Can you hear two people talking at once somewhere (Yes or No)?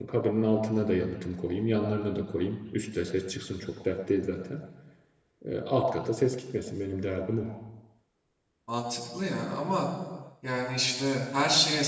No